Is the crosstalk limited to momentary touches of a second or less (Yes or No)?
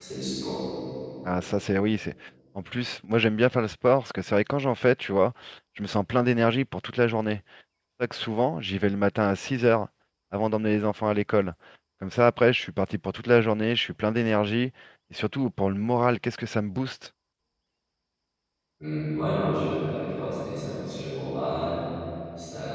Yes